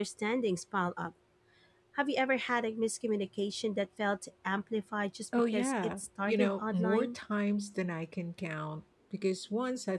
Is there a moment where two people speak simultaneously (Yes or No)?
Yes